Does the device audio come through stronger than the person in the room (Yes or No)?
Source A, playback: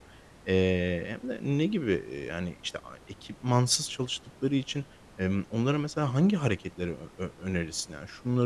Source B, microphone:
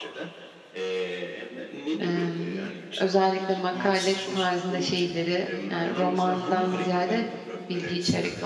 No